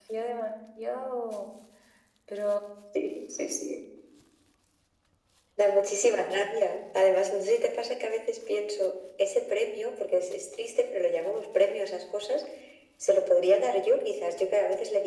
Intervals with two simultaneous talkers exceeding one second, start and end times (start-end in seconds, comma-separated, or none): none